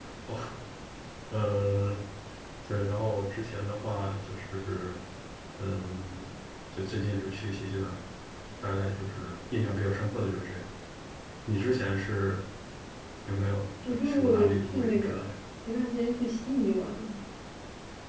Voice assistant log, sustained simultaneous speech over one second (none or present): present